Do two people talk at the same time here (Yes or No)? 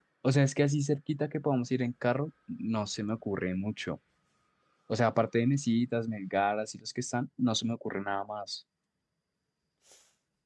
No